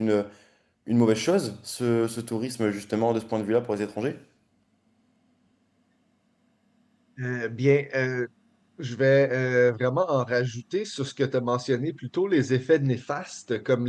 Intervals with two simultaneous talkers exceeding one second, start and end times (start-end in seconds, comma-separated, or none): none